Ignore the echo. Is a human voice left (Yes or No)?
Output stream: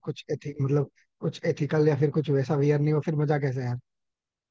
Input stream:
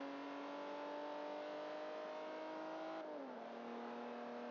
No